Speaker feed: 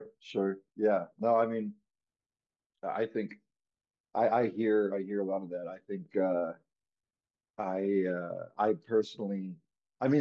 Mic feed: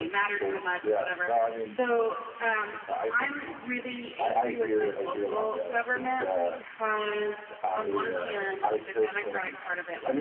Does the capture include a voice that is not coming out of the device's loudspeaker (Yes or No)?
Yes